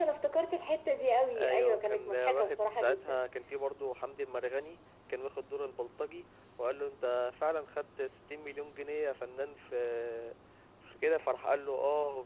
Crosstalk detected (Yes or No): Yes